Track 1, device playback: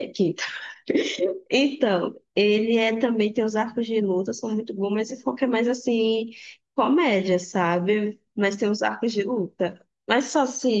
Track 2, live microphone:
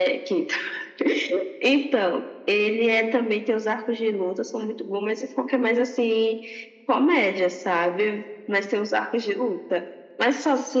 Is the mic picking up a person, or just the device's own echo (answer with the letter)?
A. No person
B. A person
A